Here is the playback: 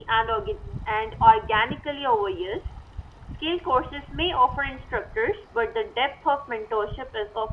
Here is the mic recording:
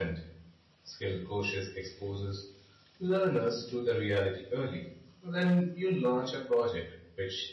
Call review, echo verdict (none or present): none